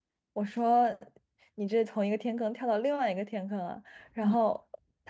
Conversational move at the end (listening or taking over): listening